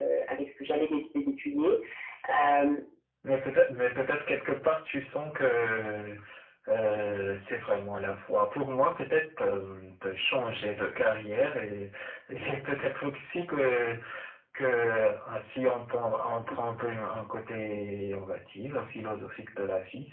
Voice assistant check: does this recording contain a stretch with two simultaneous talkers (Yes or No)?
No